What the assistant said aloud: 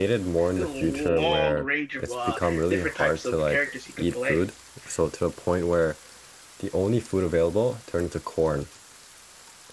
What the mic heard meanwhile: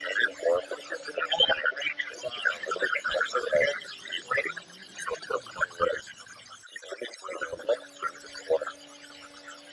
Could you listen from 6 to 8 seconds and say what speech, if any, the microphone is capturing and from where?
echo only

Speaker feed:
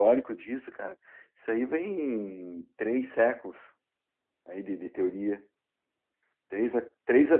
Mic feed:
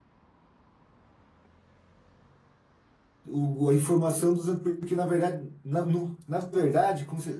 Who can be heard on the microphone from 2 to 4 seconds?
user only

